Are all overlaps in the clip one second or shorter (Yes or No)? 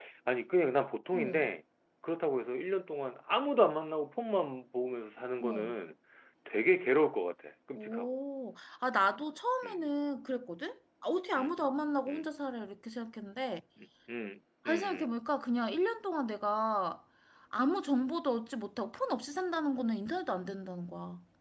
Yes